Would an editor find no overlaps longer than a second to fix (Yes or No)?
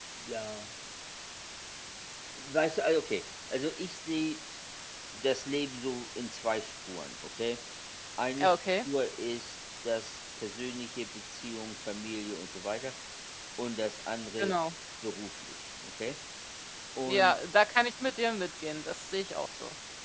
Yes